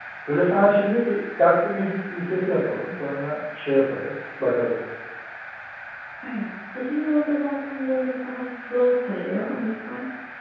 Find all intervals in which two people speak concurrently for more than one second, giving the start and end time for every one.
none

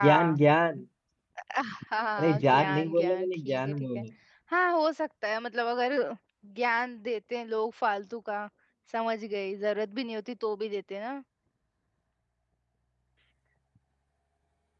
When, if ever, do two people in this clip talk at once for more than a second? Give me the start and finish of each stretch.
2.2-4.0

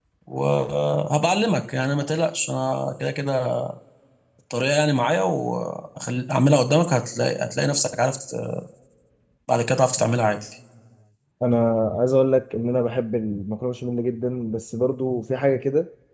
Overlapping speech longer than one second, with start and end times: none

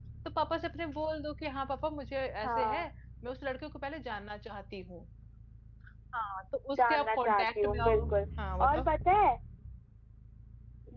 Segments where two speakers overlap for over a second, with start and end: 6.8-8.1

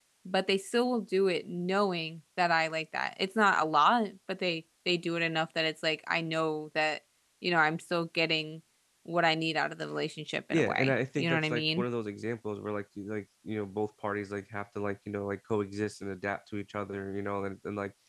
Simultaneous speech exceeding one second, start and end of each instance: 10.5-11.8

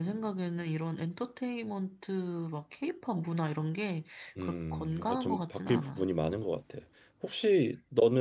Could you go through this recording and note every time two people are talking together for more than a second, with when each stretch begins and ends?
4.4-6.1

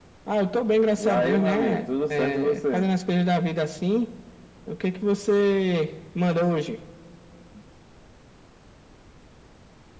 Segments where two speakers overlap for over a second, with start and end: 1.0-2.9

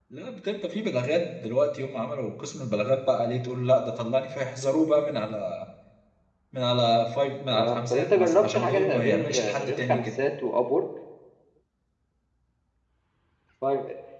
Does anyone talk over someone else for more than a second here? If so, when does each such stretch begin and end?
7.5-10.1

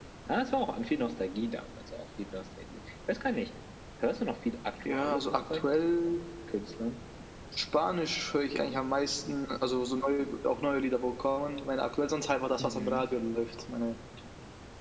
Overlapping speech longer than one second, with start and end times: 4.8-6.2

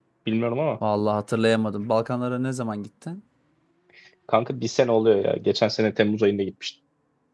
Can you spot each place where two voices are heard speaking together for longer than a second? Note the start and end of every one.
none

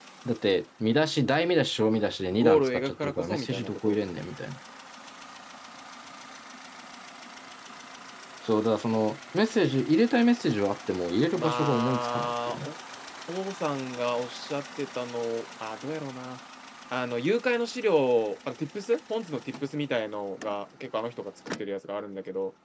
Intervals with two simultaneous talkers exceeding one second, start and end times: 2.3-4.0, 11.3-12.7

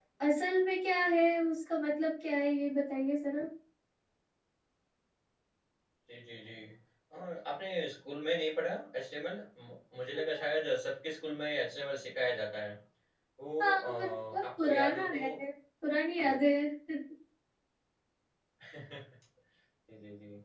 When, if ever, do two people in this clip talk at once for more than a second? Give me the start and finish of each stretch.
13.6-15.2

